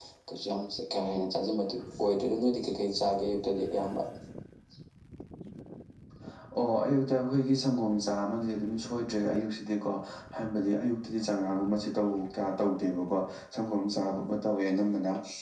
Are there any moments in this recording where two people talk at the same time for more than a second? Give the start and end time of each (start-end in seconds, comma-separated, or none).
none